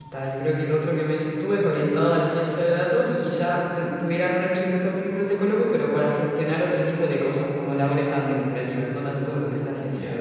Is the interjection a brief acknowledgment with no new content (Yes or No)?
No